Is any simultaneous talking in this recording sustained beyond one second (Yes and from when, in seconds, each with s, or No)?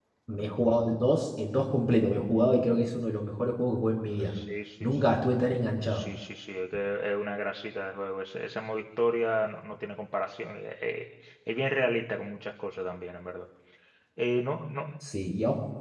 No